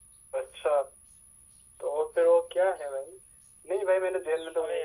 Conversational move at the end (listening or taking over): listening